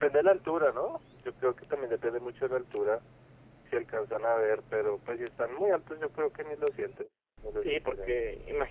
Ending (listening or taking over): taking over